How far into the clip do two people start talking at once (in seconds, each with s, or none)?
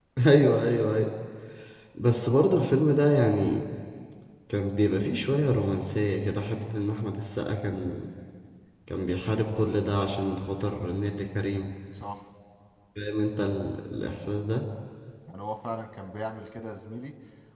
none